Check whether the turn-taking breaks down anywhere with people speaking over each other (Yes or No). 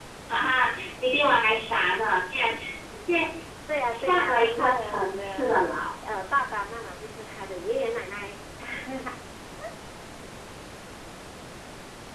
Yes